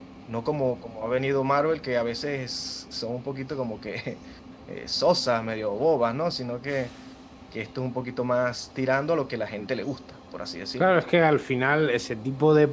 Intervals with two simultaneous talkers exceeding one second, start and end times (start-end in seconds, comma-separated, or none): none